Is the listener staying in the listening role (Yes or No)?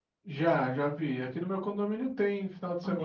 No